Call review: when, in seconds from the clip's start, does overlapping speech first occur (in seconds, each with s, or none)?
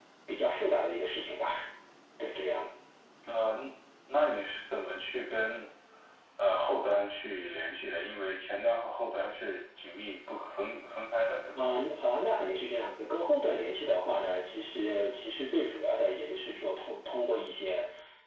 none